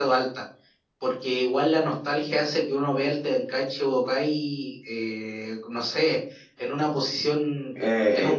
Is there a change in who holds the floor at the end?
Yes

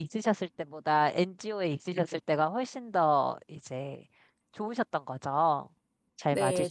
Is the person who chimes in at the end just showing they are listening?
No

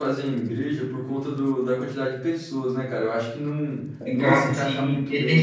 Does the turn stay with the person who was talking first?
No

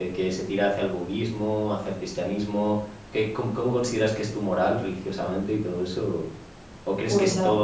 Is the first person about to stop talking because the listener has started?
No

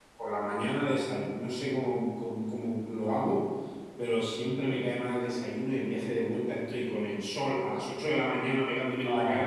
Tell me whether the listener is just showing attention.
Yes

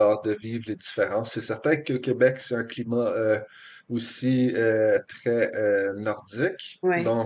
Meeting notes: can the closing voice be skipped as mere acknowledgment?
Yes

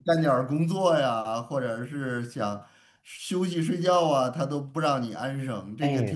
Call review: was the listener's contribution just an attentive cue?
No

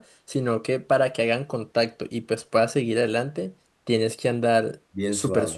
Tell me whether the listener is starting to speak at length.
No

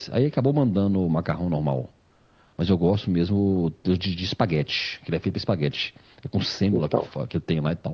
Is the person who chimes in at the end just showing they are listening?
Yes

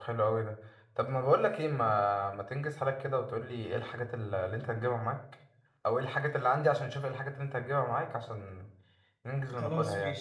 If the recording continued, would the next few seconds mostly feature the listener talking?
Yes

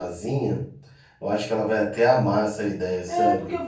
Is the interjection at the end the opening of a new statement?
Yes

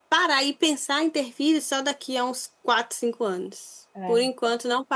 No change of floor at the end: Yes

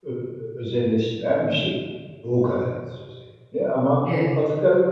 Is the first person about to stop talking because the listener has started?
No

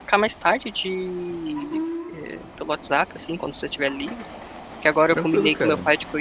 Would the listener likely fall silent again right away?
Yes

